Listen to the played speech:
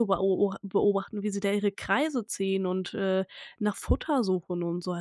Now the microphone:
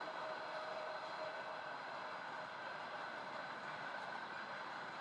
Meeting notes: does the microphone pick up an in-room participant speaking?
No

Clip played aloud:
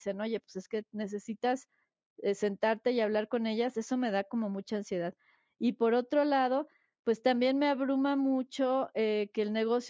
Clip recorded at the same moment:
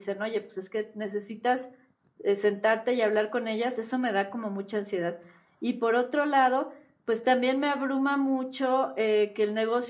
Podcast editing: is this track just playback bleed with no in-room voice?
Yes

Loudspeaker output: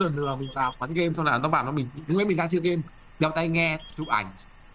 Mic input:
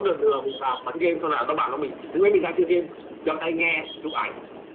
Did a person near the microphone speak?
No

